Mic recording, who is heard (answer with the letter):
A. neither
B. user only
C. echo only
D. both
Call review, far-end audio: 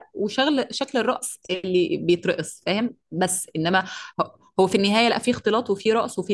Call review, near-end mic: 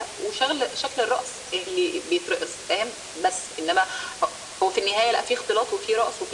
C